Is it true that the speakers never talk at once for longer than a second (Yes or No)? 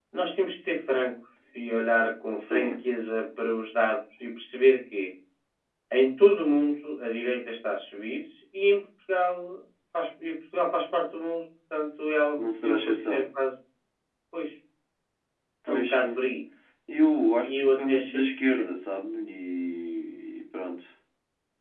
No